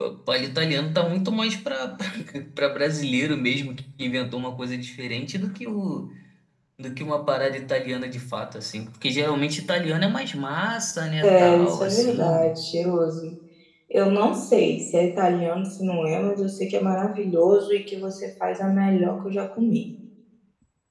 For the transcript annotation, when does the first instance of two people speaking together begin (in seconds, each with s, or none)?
11.2 s